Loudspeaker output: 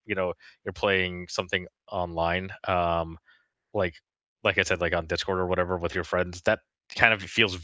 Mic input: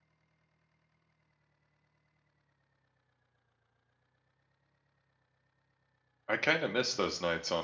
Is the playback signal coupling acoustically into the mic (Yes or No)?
No